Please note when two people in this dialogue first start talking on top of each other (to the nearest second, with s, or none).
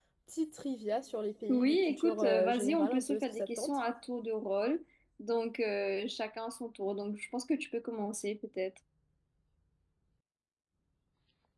1 s